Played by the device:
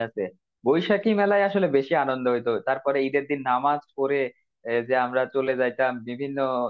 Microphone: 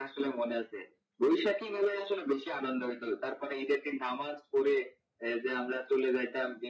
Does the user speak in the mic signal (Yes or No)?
No